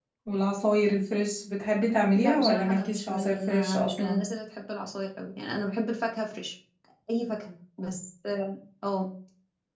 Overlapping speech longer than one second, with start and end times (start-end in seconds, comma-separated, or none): 2.2-4.2